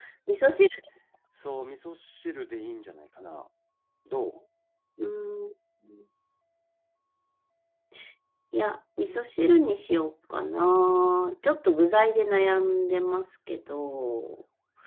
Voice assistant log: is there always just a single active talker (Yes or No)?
Yes